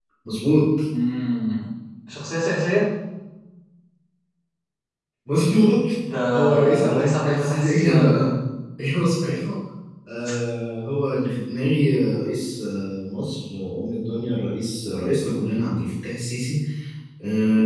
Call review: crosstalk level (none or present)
present